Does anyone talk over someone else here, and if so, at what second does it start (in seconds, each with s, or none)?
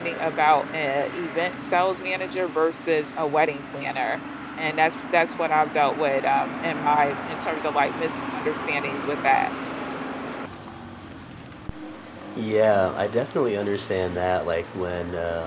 none